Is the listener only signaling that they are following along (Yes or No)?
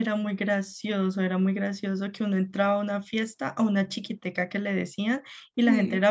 Yes